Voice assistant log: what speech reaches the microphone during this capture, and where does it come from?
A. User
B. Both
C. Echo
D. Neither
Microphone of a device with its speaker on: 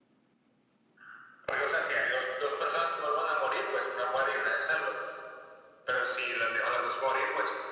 C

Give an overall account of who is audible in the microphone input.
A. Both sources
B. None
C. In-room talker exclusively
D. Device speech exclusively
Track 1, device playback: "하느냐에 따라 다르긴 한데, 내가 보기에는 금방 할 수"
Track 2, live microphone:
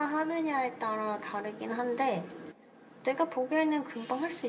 D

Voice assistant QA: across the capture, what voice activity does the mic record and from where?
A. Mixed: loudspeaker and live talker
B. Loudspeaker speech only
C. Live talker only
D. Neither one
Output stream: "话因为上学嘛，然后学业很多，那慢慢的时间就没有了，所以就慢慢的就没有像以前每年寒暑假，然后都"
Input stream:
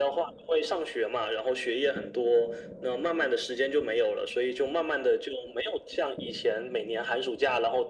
B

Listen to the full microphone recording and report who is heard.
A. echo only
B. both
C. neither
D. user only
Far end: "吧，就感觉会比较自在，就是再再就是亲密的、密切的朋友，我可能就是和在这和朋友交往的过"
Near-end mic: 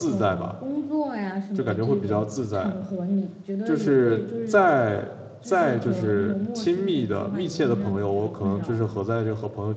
B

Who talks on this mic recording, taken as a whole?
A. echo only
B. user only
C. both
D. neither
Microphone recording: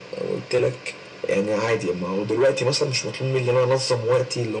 A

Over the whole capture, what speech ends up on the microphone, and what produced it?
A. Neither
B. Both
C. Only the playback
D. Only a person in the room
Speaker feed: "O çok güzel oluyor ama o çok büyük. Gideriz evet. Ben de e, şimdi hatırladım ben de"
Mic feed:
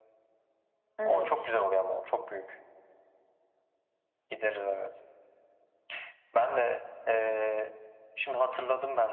B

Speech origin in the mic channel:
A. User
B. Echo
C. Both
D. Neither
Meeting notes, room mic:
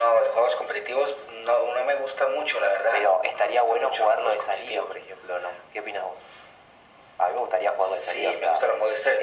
B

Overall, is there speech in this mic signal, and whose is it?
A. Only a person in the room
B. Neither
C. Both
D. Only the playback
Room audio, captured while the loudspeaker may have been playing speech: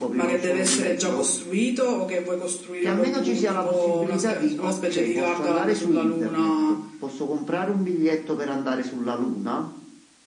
D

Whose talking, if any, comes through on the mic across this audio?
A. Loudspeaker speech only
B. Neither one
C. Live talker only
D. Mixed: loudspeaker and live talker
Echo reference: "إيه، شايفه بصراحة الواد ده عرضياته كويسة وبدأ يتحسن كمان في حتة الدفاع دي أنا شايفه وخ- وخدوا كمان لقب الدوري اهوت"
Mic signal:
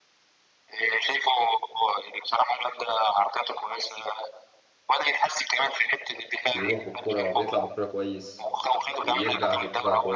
D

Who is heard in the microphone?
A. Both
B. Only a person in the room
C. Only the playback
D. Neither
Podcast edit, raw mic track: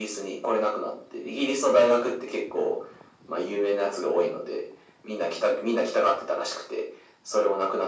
C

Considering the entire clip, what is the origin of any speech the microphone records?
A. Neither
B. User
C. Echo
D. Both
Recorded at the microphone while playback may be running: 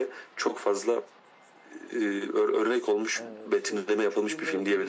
D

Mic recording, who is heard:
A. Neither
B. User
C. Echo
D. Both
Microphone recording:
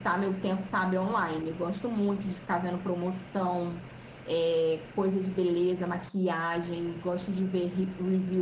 C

